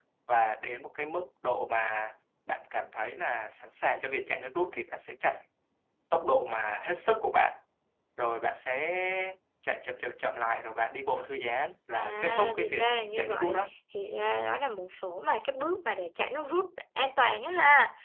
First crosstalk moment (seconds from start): 11.9 s

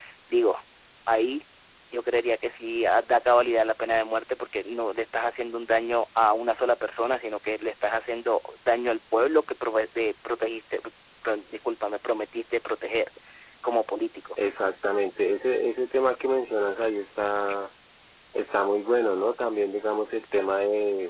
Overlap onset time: none

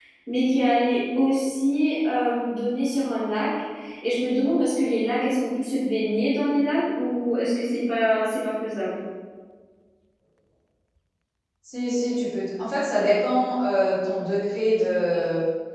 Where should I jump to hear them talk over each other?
none

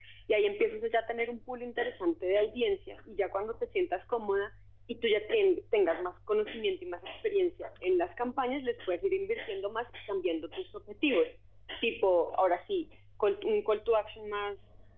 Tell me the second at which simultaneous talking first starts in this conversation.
none

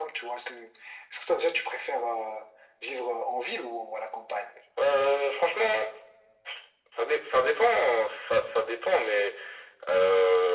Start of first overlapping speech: none

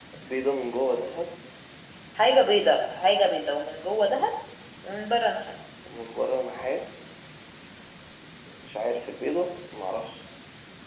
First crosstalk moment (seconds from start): none

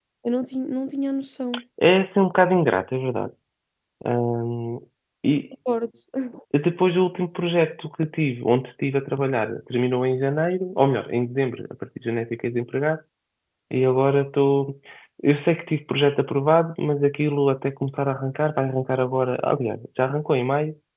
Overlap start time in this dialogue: none

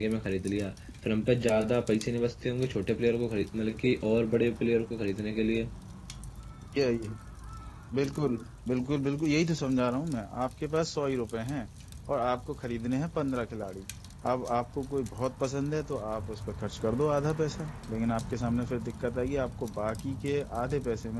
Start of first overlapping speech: none

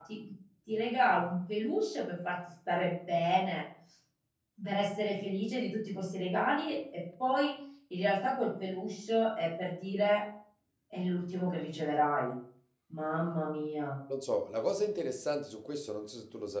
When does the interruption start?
none

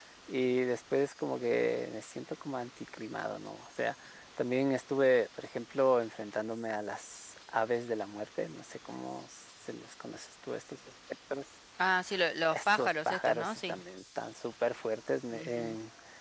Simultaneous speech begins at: 12.5 s

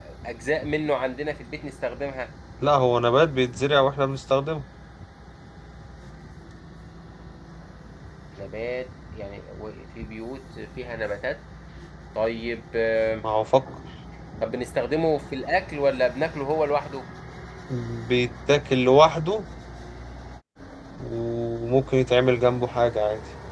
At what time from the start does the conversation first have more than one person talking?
none

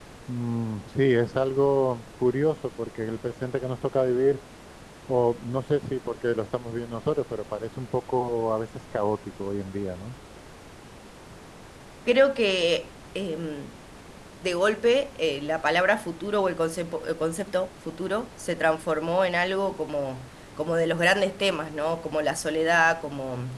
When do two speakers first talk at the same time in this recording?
none

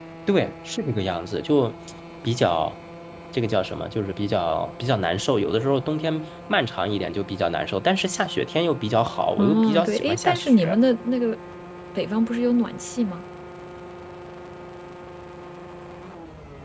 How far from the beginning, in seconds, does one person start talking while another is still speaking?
9.4 s

